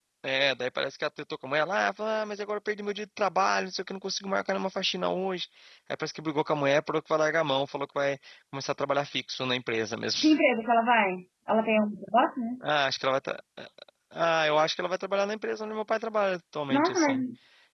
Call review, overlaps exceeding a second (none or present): none